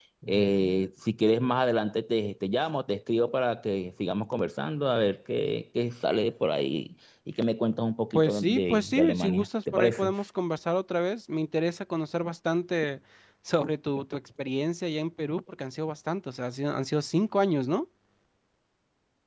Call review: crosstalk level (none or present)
present